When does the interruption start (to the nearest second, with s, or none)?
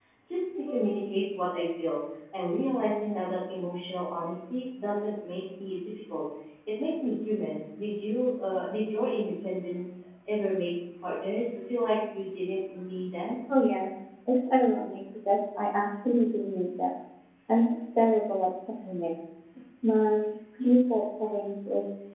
none